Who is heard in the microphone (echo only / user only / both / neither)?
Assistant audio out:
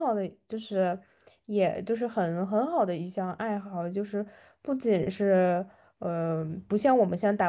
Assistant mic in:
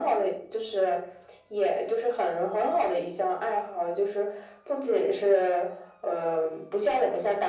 echo only